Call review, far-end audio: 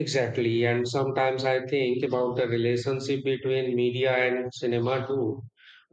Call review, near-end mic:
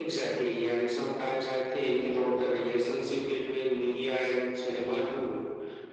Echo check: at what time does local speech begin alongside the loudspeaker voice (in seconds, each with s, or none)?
none